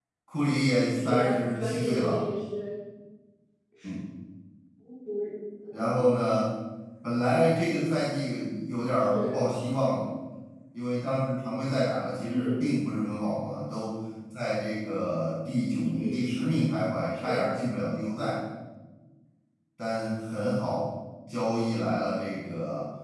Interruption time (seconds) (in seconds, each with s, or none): 1.0 s